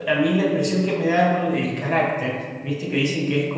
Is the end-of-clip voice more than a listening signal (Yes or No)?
No